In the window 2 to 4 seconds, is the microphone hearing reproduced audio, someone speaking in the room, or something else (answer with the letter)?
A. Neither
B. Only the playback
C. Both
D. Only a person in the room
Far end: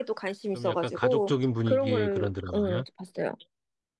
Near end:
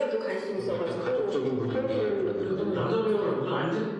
C